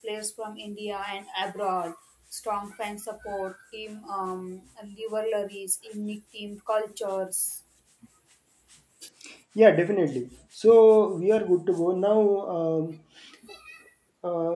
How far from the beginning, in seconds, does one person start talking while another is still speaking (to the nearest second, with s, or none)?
none